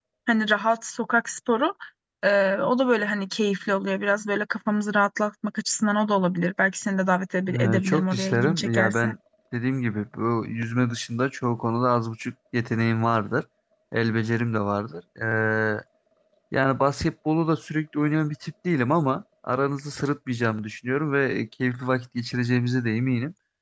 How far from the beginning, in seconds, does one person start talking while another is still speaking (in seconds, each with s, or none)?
7.5 s